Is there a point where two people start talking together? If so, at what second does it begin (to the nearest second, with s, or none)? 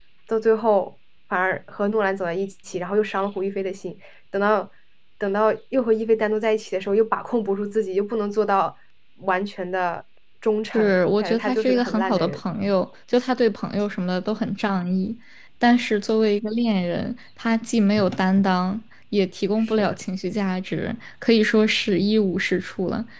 11 s